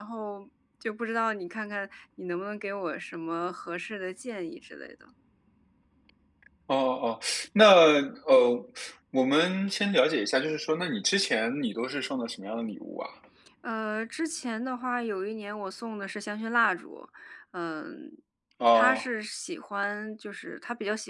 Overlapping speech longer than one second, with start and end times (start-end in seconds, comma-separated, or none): none